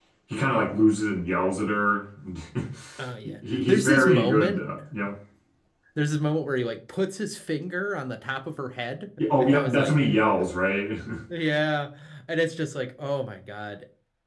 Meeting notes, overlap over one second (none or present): present